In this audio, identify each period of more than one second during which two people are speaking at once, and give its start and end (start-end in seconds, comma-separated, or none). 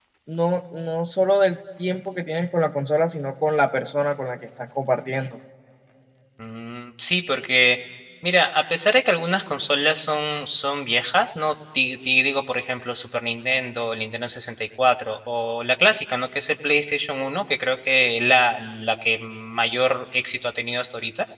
none